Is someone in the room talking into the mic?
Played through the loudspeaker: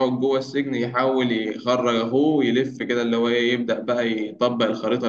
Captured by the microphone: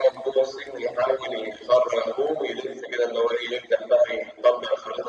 No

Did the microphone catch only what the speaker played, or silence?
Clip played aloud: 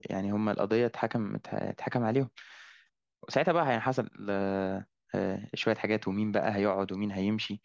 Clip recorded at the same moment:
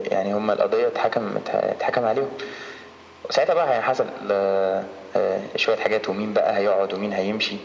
Yes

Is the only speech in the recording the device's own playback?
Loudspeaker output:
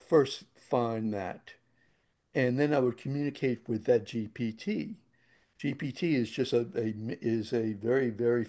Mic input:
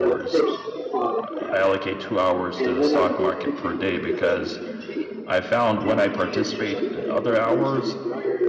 No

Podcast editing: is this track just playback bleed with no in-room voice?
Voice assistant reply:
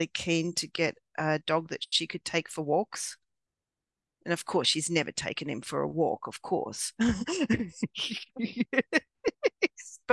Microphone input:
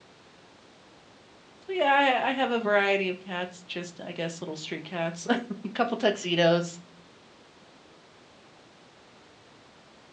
No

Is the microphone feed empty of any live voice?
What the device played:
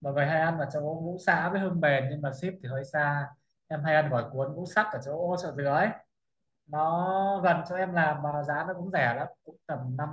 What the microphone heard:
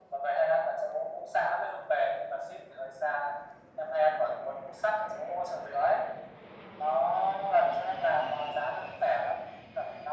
Yes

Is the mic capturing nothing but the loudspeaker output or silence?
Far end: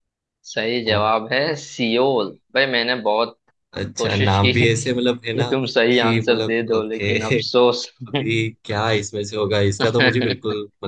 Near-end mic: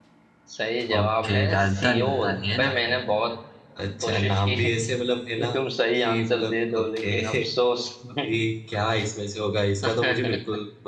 No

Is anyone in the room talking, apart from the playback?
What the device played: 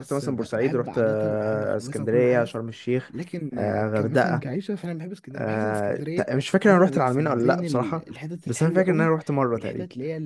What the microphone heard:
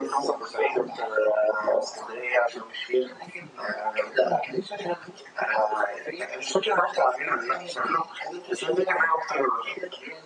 No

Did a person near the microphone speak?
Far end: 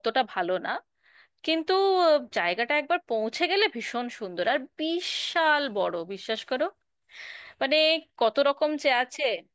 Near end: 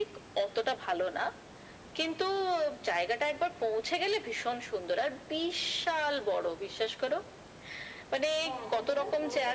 Yes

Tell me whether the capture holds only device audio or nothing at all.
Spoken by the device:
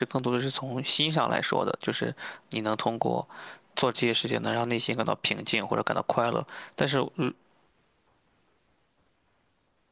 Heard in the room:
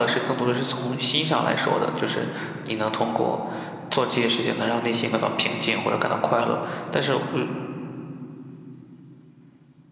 Yes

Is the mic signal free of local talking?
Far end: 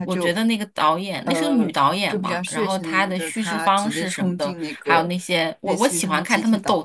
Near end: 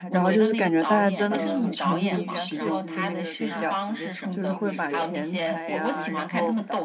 No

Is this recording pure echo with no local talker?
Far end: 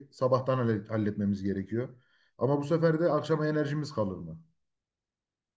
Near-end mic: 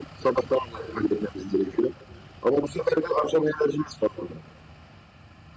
Yes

